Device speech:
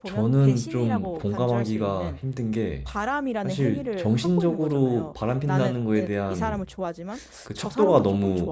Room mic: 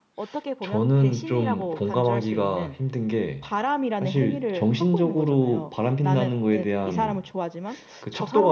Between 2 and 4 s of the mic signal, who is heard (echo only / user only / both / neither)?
echo only